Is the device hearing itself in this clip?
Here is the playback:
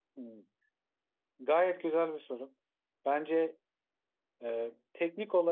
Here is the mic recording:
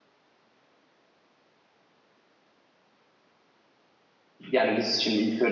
No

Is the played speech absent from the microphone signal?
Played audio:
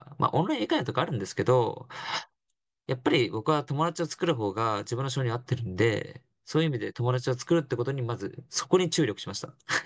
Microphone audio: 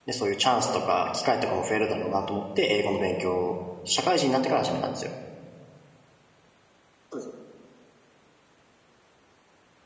Yes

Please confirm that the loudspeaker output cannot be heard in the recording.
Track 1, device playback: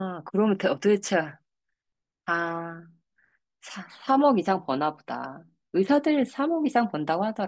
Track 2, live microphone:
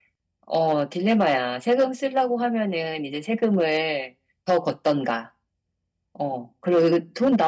Yes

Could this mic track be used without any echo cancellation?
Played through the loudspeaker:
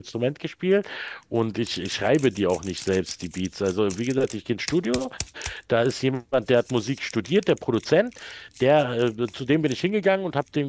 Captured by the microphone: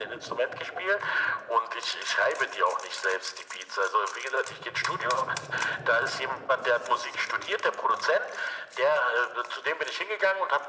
No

